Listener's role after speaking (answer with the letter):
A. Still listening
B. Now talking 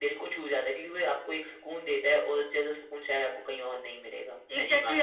B